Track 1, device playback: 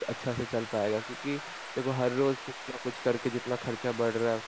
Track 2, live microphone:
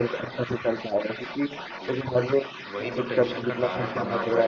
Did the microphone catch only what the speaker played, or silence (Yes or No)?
No